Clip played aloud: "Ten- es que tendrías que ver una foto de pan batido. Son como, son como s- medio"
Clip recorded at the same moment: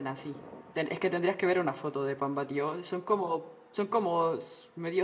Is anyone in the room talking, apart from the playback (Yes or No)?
No